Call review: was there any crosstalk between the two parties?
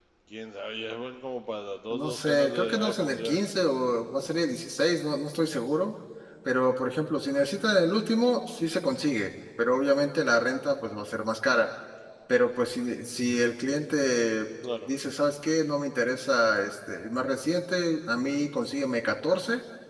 Yes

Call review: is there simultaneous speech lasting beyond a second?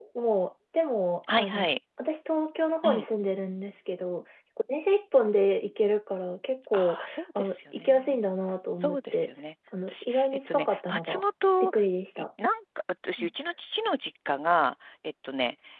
Yes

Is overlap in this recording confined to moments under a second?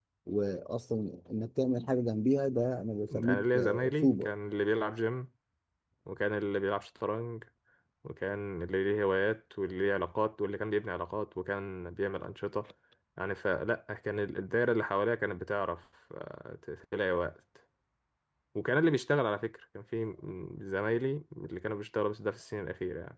No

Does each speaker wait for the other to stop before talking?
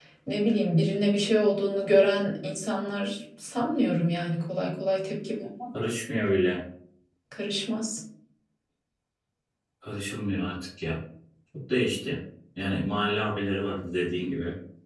Yes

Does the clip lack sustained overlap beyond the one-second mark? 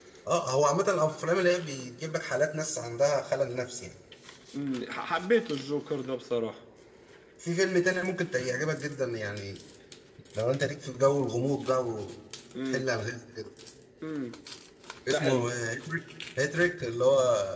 Yes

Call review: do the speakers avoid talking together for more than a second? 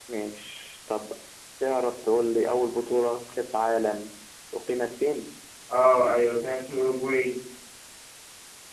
Yes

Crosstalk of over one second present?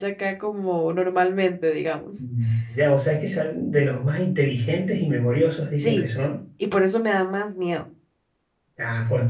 No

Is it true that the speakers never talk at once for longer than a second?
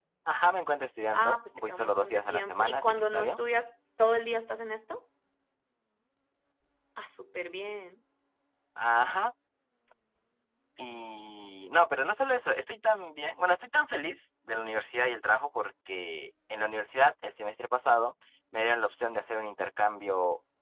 No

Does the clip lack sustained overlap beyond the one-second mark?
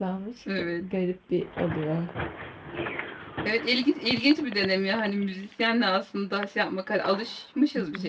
Yes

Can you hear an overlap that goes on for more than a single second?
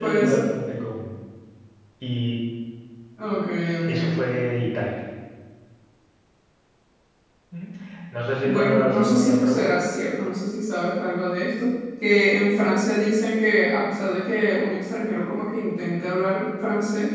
Yes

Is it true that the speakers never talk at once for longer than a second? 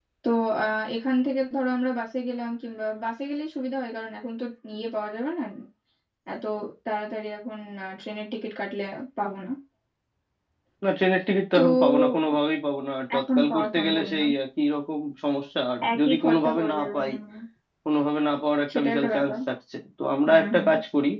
No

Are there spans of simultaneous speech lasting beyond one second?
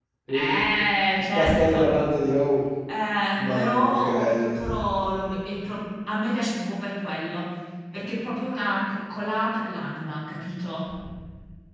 Yes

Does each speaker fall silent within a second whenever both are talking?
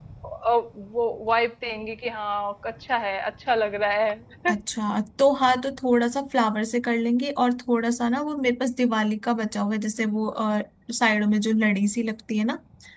Yes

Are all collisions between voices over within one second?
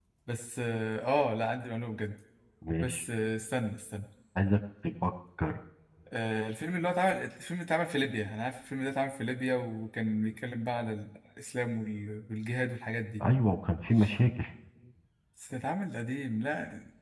Yes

